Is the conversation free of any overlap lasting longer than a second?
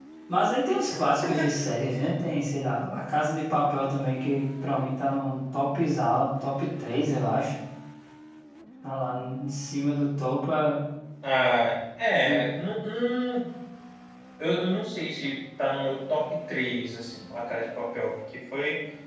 Yes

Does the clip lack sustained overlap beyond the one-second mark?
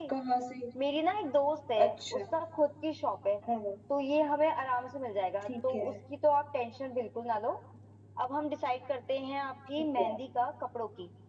Yes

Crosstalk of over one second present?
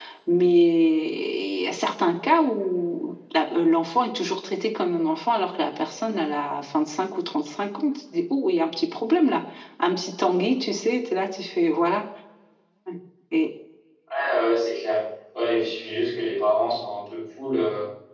No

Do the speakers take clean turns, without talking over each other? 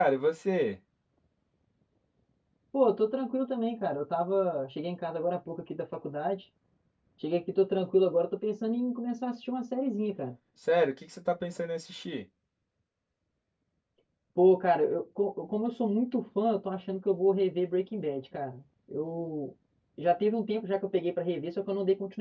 Yes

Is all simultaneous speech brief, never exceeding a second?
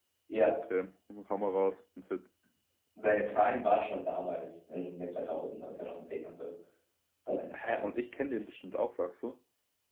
Yes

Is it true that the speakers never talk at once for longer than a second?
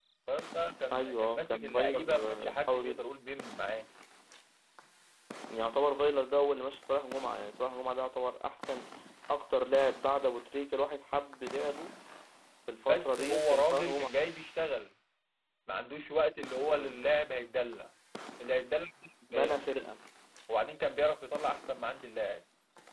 No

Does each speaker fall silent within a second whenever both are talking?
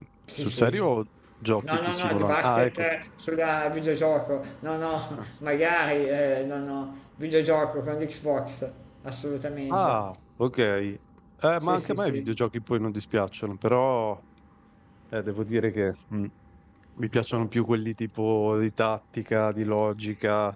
No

